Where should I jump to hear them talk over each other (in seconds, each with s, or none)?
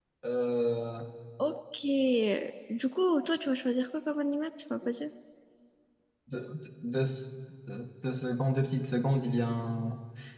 none